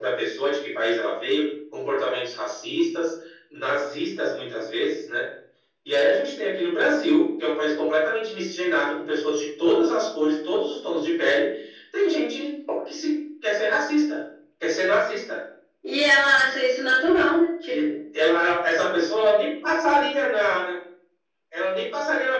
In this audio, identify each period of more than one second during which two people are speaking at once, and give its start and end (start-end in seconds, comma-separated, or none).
none